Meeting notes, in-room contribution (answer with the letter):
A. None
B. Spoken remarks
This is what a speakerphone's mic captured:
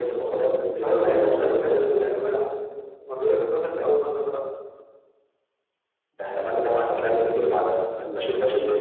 B